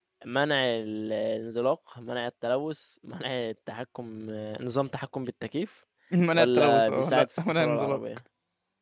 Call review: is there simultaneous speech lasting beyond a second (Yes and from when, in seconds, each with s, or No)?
Yes, from 6.3 s